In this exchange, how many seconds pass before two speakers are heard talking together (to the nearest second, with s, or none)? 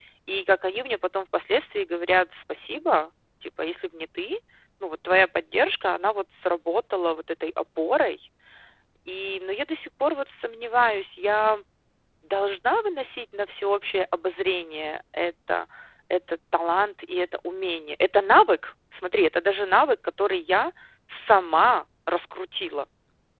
none